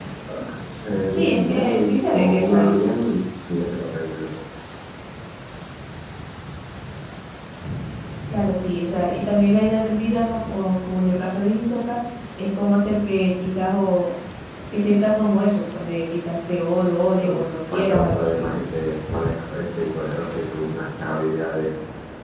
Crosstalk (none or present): present